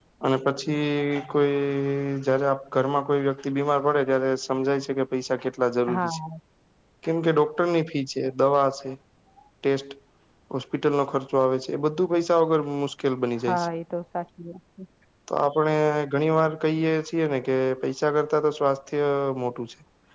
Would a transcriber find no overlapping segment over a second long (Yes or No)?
Yes